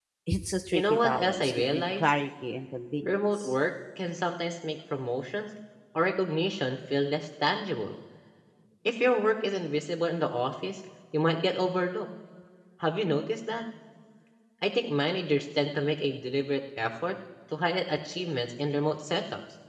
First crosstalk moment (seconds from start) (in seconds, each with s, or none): 0.7 s